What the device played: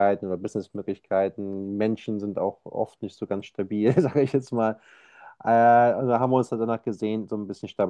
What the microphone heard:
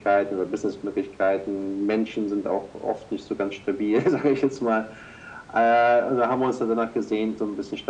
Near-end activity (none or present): none